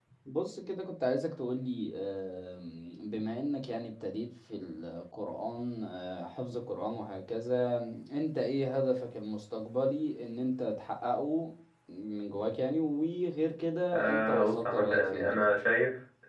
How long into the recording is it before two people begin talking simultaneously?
14 s

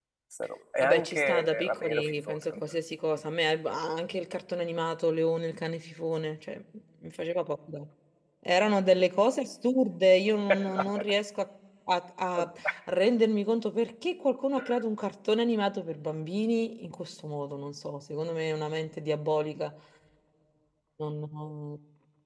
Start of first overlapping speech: 1 s

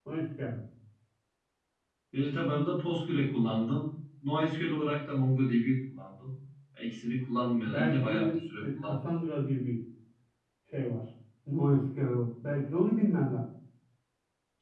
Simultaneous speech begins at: 8 s

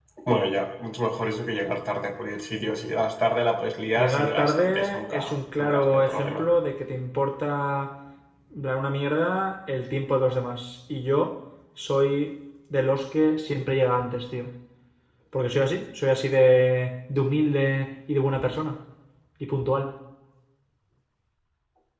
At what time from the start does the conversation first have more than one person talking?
4 s

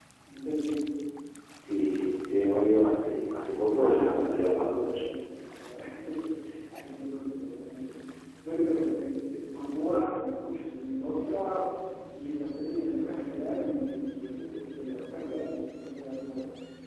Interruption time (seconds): 4 s

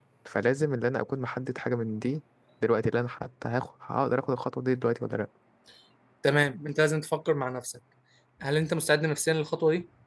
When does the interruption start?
none

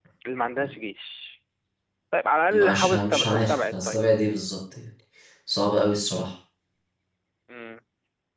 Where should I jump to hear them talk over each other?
3 s

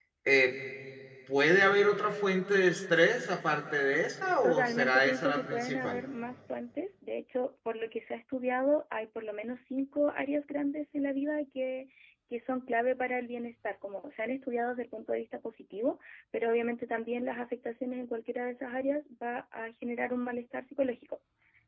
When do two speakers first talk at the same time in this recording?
4 s

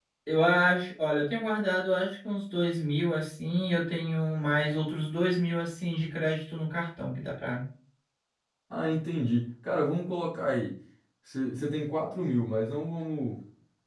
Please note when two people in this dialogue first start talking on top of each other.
none

